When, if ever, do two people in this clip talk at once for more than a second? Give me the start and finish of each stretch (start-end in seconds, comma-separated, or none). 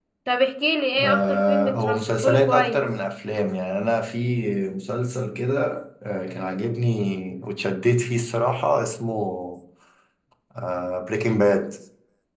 1.0-2.8